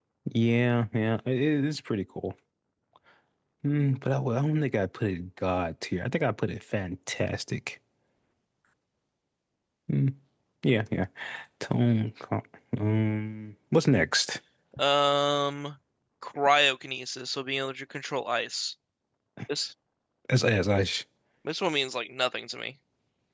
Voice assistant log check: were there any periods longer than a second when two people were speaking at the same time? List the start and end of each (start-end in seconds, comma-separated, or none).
none